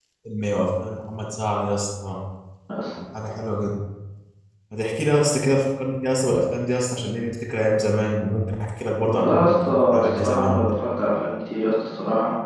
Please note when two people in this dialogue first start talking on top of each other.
9 s

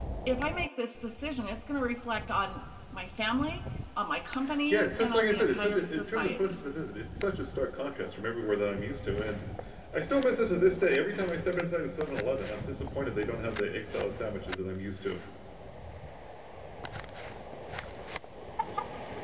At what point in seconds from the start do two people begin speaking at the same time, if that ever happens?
5 s

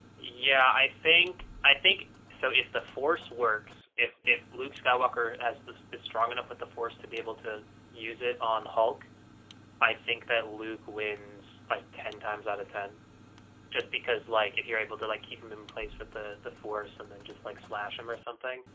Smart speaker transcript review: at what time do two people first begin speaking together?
none

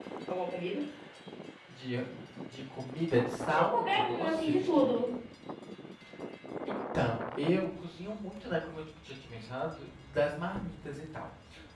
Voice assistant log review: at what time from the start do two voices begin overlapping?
4 s

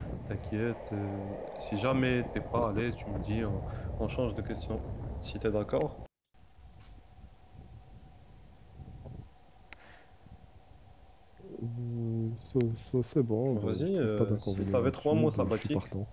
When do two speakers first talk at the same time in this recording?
14 s

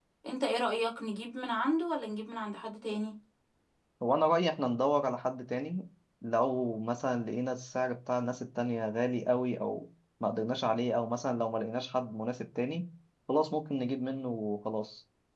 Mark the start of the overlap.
none

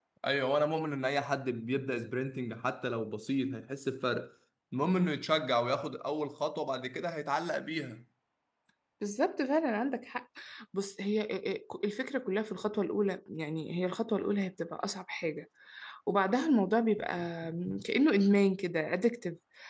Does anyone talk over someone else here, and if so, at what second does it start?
none

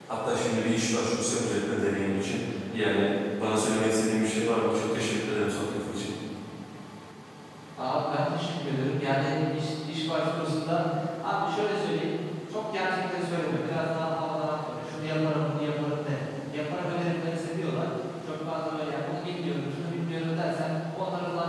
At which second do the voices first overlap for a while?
none

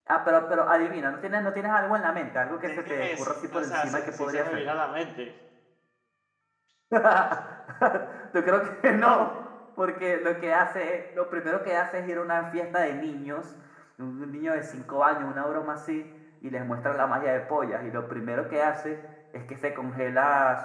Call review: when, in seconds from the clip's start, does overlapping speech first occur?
3 s

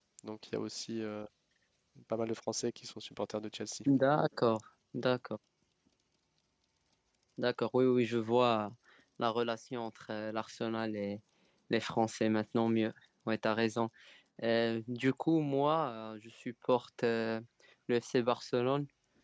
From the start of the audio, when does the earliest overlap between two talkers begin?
none

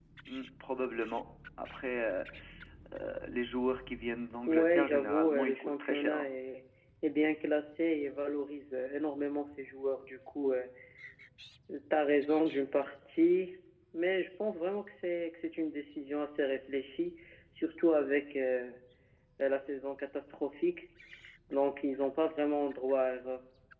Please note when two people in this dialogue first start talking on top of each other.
4 s

